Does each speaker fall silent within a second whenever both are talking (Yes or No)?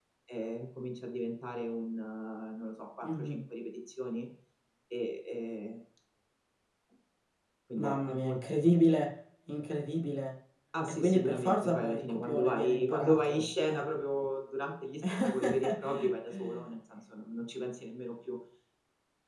No